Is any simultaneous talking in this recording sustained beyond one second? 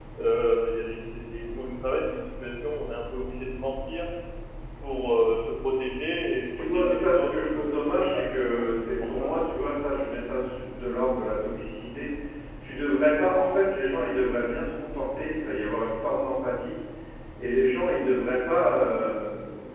Yes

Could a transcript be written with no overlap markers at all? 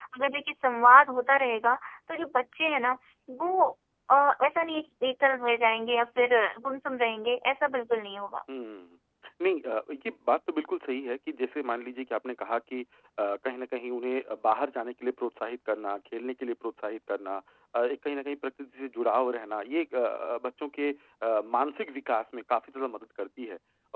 Yes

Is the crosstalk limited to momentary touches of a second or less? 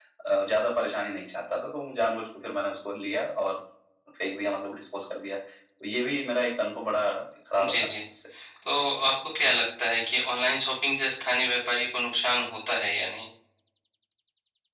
Yes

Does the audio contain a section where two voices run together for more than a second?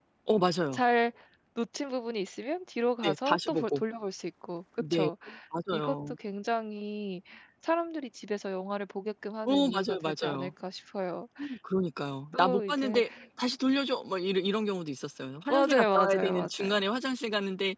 Yes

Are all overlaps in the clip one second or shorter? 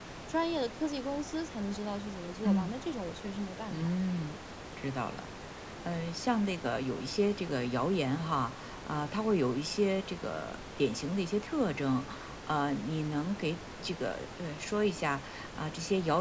Yes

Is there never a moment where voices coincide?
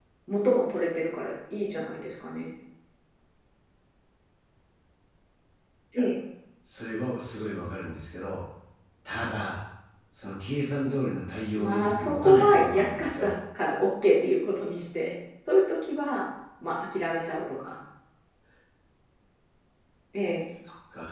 No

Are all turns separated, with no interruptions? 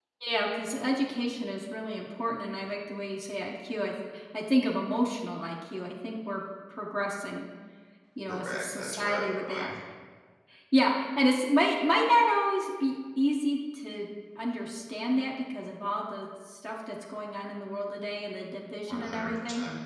No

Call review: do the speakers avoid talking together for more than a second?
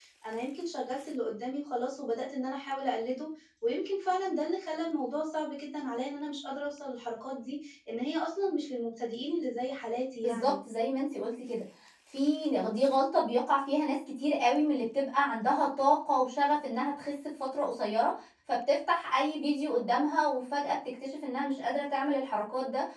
Yes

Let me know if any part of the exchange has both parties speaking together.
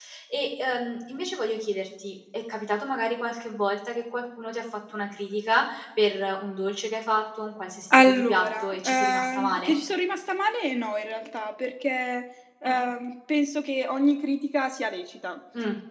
Yes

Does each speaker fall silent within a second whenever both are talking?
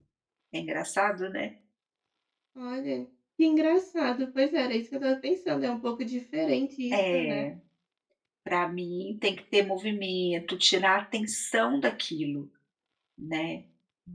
Yes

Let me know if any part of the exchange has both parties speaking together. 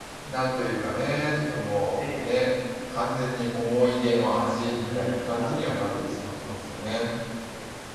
Yes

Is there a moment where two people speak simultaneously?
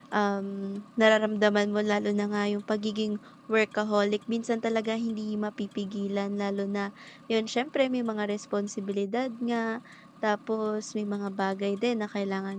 No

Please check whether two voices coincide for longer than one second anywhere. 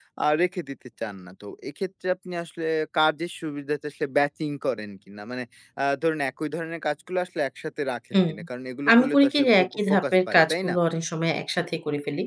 Yes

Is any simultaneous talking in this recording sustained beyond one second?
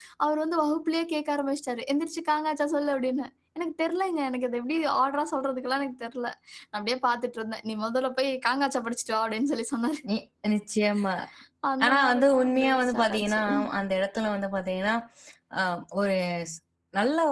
Yes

